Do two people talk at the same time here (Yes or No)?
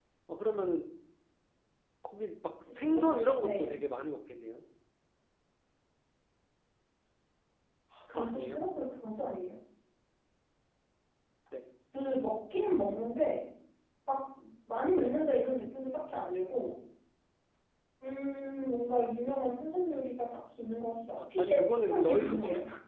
Yes